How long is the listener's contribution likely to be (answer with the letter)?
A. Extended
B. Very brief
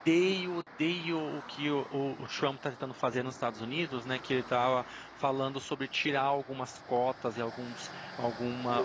A